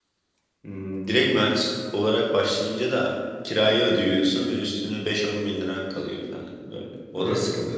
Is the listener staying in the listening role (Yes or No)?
No